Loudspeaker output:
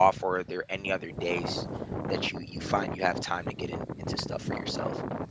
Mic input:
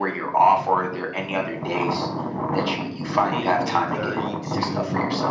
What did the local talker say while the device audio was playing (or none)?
eight eight thirty to